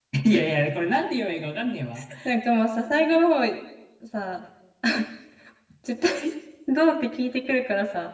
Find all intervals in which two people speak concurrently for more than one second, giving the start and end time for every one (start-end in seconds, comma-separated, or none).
none